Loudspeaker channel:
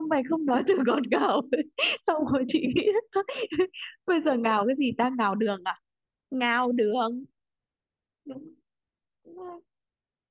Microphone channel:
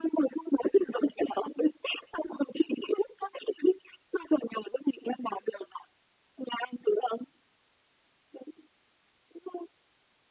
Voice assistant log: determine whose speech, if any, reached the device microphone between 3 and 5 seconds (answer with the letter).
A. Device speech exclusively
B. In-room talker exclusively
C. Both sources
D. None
A